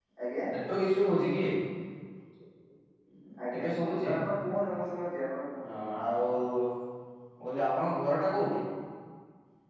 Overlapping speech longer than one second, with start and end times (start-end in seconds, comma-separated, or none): none